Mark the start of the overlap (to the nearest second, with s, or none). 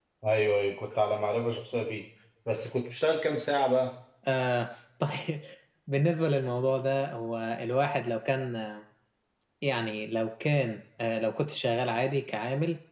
none